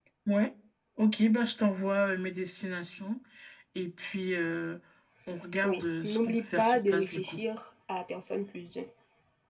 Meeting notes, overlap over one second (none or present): present